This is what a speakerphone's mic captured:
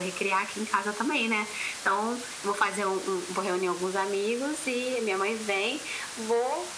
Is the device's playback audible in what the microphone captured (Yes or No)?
Yes